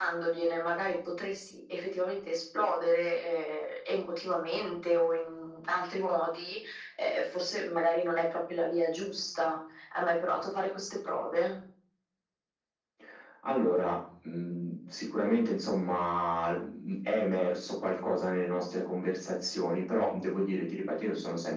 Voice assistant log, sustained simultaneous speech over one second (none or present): none